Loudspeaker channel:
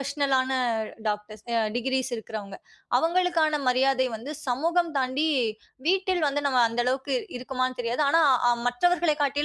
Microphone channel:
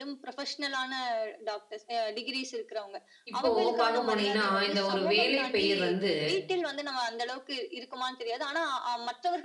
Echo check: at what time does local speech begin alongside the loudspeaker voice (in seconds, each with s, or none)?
3.3 s